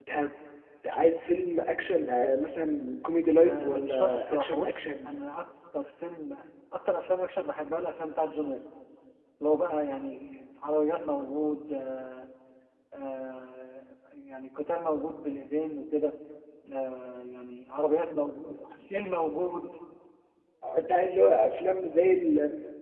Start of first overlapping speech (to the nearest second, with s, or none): 3 s